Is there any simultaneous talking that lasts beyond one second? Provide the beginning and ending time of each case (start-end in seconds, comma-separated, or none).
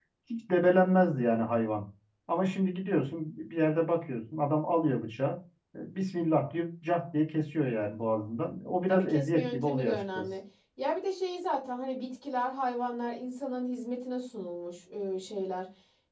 8.9-10.2